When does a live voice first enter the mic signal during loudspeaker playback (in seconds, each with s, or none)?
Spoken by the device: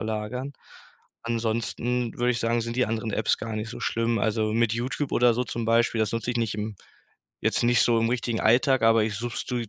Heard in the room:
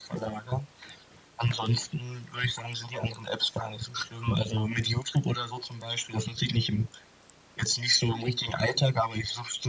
none